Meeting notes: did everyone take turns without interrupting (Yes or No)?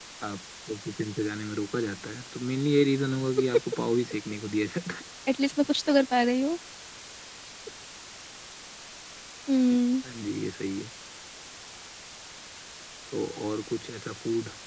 Yes